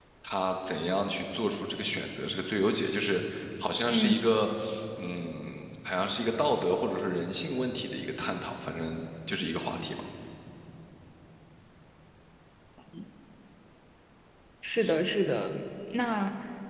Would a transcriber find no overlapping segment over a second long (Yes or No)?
Yes